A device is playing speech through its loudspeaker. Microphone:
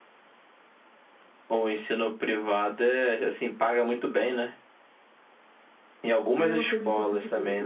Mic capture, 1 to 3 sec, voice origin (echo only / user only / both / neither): echo only